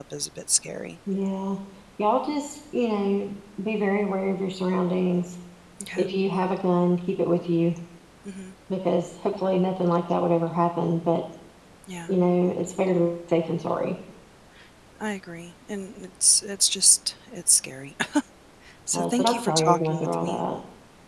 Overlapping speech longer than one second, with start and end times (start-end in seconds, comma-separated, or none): 18.9-20.4